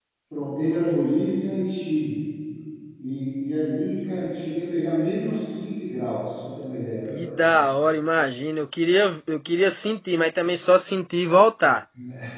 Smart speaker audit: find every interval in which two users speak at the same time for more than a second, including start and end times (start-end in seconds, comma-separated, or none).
none